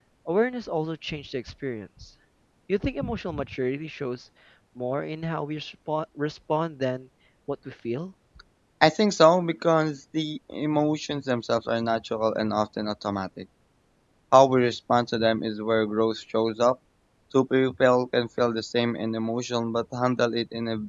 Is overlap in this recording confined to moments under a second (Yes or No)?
Yes